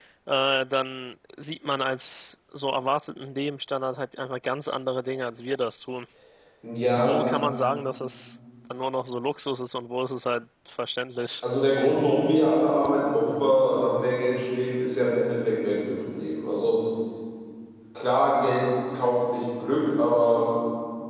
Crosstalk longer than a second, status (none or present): none